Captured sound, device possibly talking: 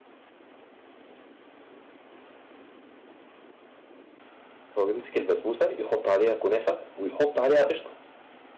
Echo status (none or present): none